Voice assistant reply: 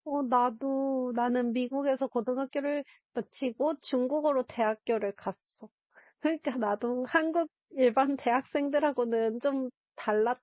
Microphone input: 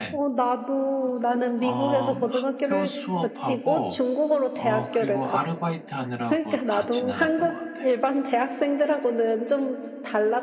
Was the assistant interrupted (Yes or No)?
Yes